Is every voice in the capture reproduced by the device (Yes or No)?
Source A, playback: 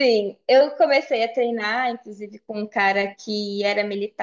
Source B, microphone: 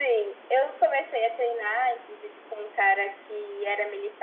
Yes